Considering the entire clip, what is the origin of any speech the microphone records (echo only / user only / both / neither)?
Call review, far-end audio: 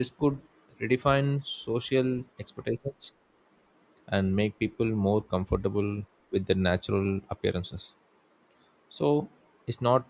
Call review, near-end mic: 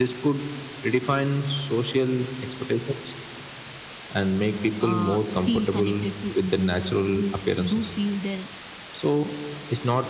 both